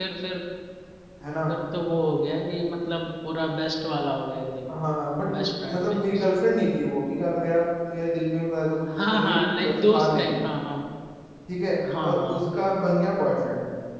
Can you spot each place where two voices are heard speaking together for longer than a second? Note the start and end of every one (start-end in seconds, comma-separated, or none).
8.9-10.3